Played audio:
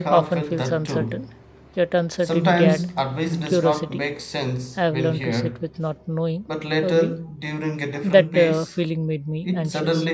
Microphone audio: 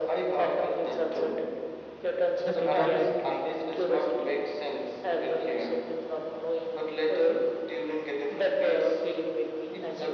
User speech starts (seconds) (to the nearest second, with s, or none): 2 s